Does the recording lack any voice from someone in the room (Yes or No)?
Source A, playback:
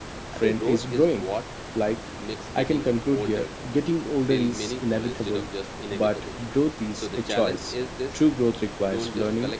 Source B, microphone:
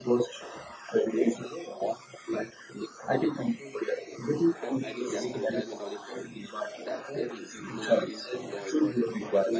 No